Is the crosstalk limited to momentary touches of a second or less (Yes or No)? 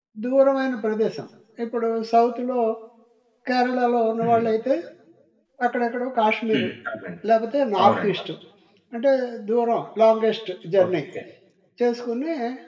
Yes